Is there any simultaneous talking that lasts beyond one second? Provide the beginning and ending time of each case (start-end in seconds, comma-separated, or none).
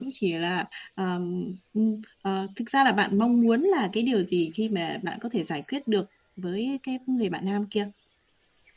none